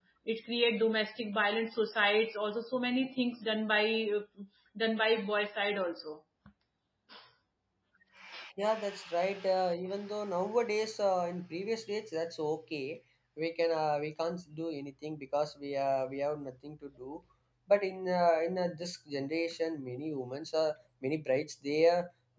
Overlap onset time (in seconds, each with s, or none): none